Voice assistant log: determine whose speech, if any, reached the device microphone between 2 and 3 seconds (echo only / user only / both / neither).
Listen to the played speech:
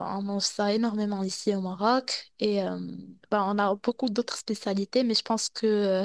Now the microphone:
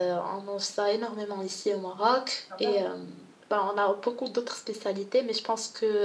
both